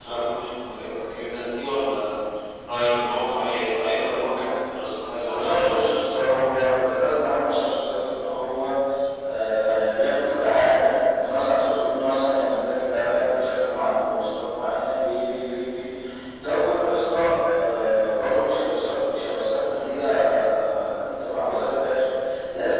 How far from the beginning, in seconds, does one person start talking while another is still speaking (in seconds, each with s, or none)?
5.2 s